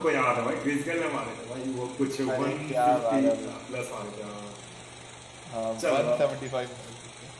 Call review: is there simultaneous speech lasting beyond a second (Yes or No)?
Yes